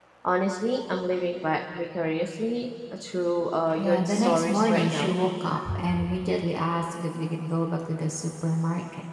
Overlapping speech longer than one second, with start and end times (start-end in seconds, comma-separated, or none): 3.8-5.1